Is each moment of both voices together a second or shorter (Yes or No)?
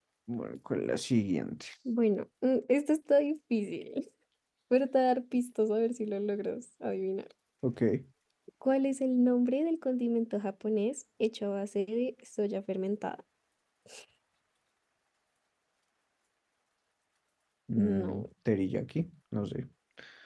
Yes